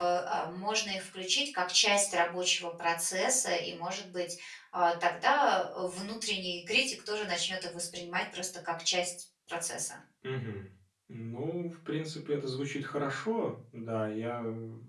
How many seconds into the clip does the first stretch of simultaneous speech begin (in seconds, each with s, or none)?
none